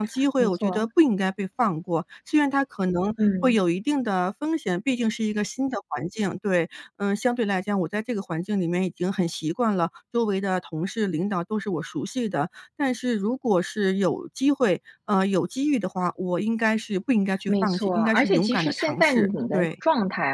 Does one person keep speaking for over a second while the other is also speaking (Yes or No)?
Yes